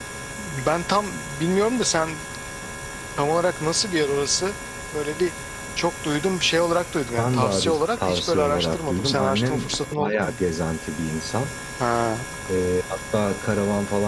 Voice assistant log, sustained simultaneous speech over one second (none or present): present